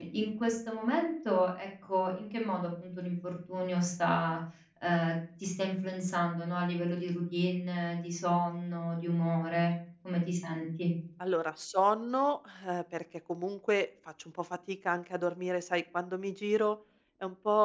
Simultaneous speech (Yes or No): No